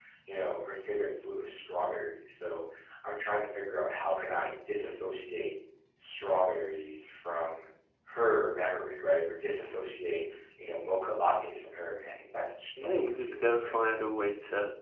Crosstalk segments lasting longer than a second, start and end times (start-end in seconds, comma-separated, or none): 12.8-14.0